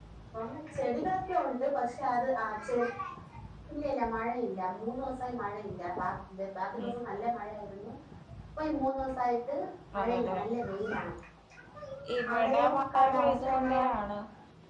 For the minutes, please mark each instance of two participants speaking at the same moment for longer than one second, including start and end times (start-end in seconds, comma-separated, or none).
12.3-13.9